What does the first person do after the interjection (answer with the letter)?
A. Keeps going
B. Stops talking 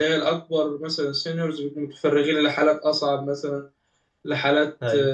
A